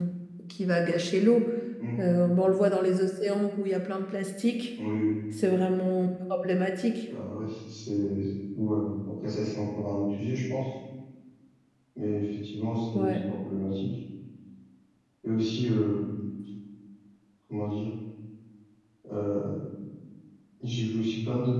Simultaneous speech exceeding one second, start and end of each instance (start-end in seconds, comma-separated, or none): none